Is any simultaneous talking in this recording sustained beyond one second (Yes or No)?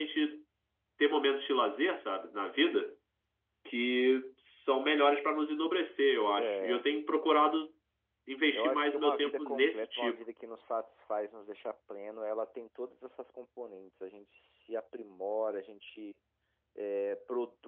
Yes